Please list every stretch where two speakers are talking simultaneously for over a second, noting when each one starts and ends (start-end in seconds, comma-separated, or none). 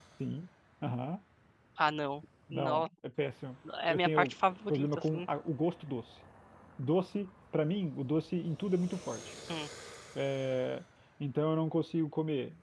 3.9-5.2